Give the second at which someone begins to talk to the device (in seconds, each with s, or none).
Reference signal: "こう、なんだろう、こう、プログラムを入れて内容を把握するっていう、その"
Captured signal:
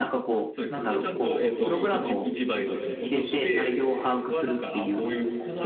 0.5 s